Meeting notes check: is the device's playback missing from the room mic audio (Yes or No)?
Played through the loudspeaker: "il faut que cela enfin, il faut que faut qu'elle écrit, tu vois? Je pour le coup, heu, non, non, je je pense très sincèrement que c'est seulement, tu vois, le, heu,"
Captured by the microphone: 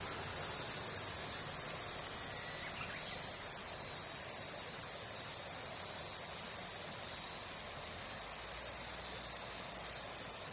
Yes